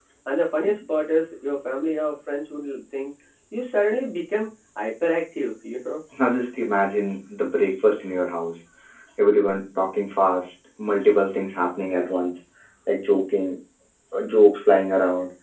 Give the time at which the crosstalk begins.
none

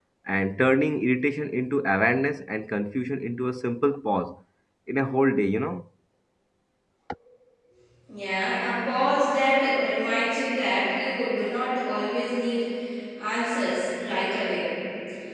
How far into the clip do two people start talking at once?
none

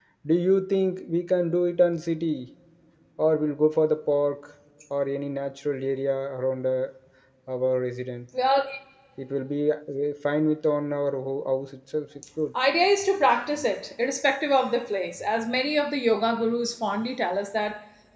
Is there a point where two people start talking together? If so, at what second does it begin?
none

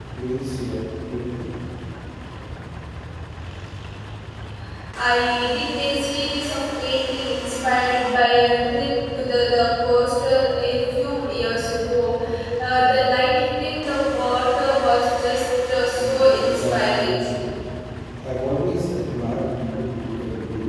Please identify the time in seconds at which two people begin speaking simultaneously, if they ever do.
16.0 s

